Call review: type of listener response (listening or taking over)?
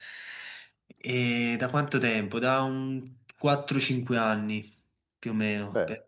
listening